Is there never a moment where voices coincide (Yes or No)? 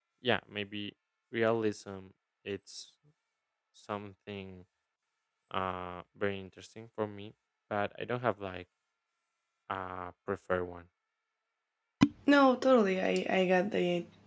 Yes